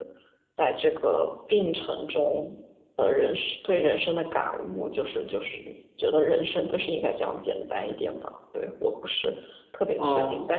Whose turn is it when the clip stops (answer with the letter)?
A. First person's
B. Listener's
A